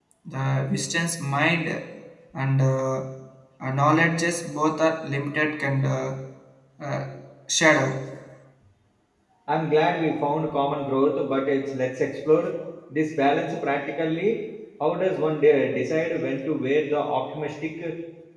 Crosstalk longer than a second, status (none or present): none